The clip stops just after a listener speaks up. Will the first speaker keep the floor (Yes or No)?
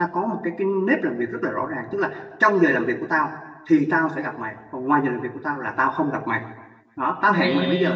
Yes